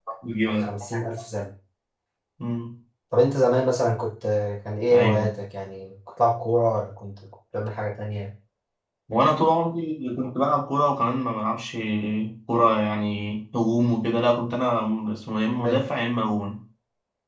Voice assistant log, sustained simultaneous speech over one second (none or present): none